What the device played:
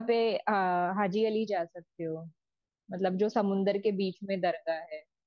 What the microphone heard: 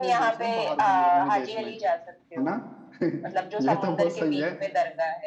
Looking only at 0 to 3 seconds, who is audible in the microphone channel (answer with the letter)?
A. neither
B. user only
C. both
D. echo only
C